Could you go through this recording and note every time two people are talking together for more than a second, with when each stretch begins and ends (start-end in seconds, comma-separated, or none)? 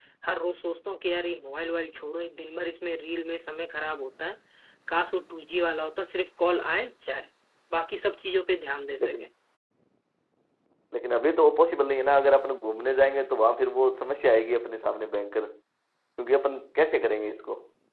none